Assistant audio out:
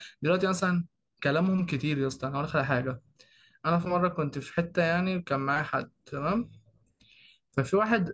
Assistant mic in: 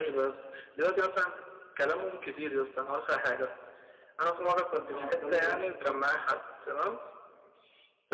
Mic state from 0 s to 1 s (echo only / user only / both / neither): echo only